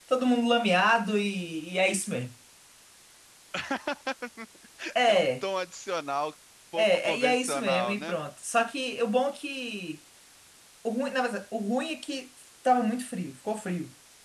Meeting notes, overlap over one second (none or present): present